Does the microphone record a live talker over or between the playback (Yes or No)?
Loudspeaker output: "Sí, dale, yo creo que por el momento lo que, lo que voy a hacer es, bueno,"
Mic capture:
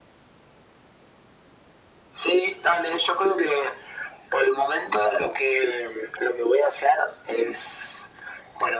No